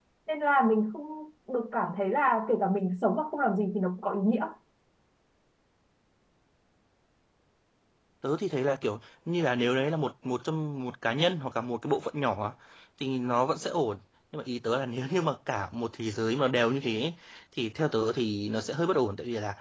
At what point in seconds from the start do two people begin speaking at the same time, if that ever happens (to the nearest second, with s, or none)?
none